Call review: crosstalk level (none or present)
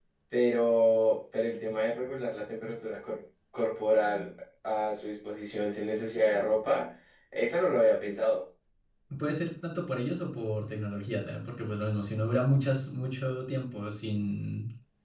none